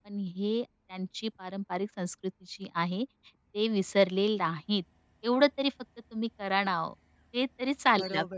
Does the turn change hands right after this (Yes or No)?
Yes